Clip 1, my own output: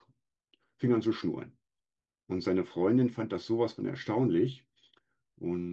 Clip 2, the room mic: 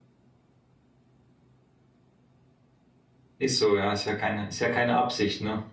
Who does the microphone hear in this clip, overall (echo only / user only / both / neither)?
user only